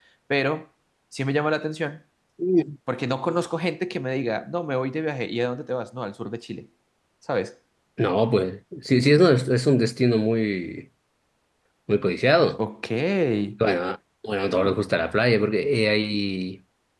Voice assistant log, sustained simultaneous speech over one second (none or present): none